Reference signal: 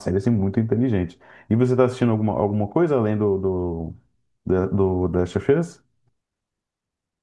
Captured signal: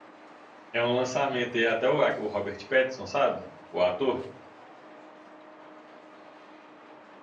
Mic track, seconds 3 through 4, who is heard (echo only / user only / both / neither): user only